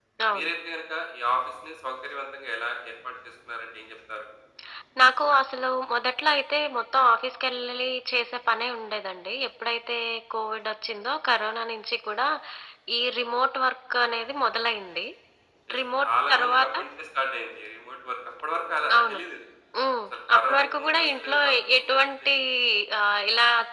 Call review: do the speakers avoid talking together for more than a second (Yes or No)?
No